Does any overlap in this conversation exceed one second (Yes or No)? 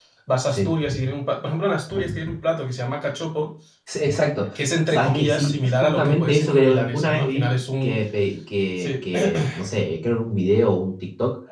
Yes